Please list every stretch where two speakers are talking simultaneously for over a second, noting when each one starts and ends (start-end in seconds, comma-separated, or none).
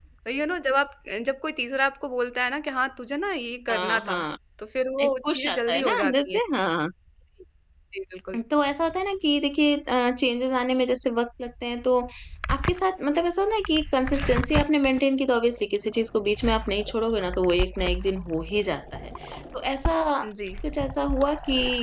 5.0-6.4